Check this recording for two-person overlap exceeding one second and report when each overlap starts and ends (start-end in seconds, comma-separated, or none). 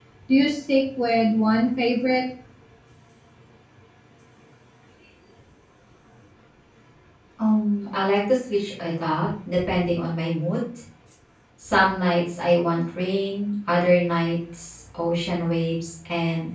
none